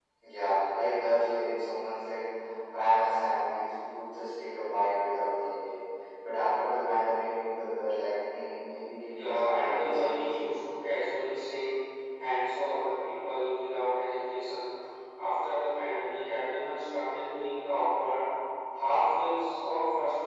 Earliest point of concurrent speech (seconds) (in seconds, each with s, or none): 9.1 s